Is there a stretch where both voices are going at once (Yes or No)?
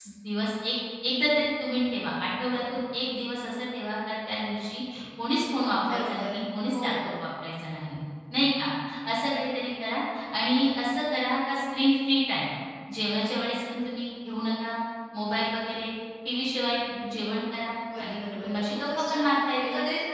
Yes